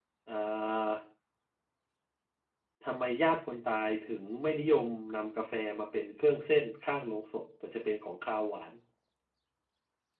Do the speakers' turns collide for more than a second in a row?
No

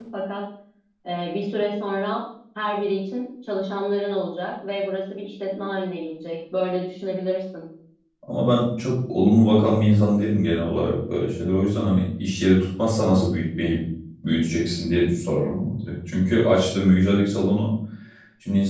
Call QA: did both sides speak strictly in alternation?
Yes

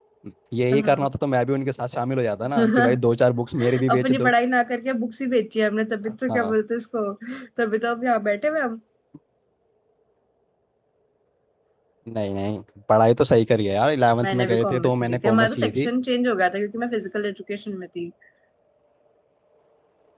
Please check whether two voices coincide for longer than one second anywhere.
Yes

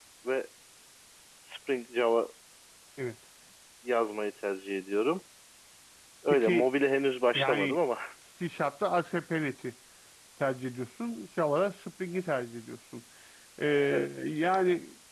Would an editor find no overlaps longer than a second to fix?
Yes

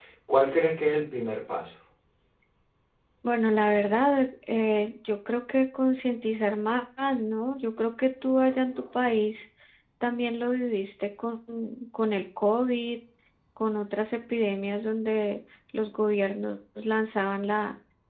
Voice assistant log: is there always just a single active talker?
Yes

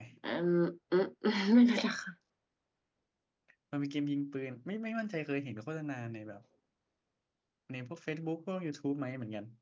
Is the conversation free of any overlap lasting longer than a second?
Yes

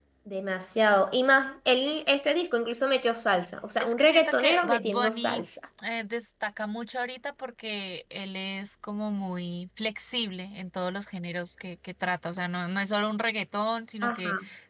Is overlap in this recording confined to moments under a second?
No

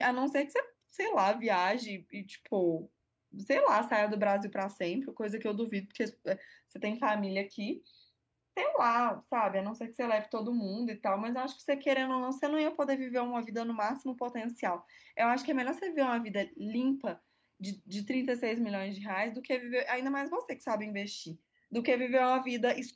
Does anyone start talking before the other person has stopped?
No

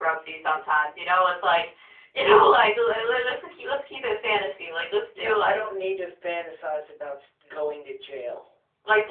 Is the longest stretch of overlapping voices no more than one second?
Yes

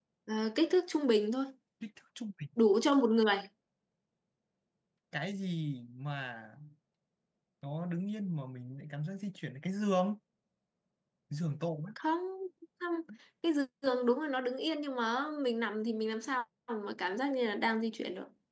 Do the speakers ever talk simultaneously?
No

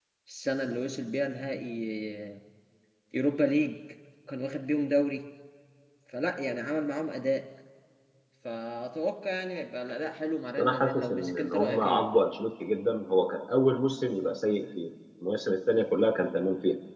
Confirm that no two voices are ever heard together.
No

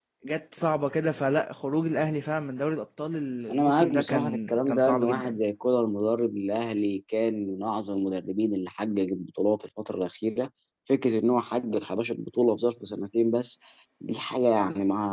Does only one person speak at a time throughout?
No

